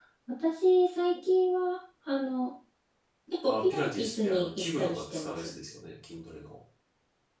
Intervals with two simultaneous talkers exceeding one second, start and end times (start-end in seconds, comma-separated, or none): 3.5-5.5